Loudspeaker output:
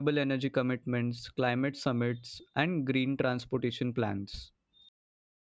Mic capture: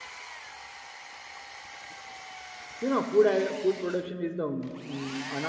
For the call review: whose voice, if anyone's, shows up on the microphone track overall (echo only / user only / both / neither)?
user only